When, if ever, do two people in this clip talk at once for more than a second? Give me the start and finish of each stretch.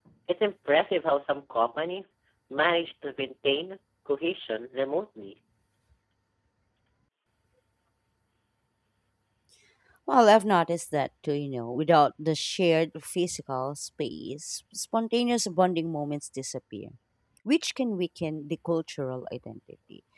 none

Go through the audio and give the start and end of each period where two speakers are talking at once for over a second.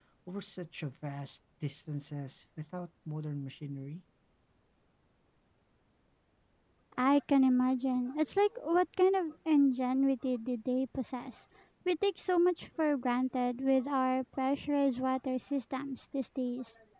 none

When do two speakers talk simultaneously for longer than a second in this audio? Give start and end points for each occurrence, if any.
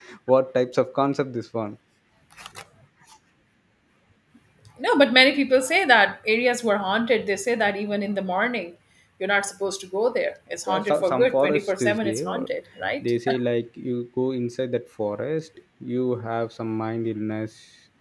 10.7-12.5

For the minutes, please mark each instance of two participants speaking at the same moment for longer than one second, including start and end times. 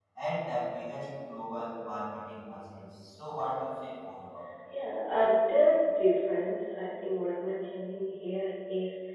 none

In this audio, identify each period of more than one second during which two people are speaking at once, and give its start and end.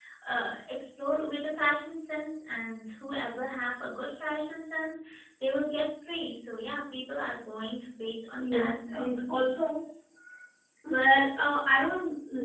8.4-9.7

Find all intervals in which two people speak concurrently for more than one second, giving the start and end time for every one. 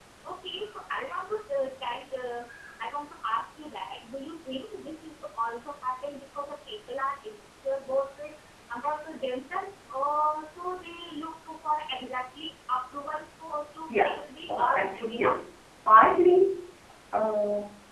14.0-15.4

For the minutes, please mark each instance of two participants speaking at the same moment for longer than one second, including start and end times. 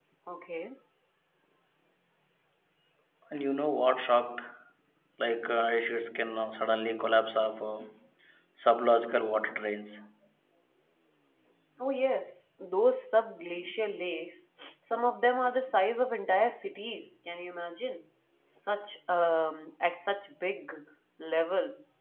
none

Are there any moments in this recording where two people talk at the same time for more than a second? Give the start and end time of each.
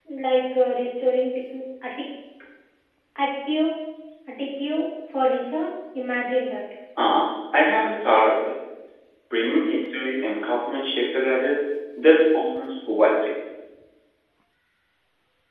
none

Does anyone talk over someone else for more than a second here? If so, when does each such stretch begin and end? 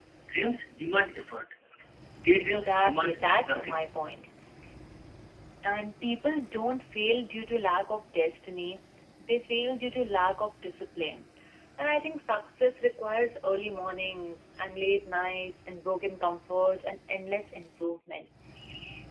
2.4-3.8

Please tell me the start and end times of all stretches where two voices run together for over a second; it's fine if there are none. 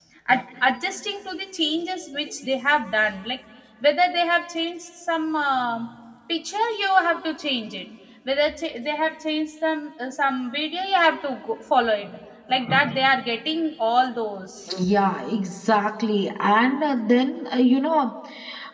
none

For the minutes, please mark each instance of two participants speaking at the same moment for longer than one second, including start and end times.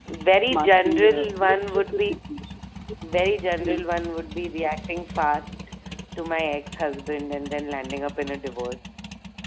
0.5-2.1

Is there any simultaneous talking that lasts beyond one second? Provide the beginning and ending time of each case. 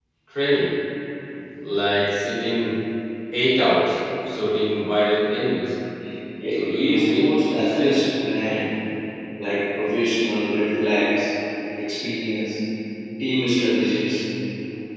6.5-8.0

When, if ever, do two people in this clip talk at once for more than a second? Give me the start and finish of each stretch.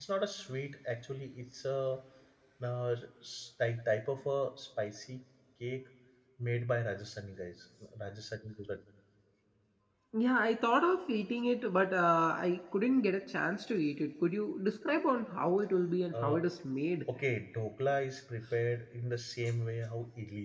none

